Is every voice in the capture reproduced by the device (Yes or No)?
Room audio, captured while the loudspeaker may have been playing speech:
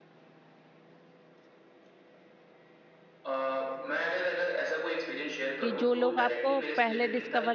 No